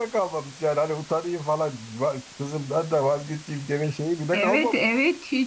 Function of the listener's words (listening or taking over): taking over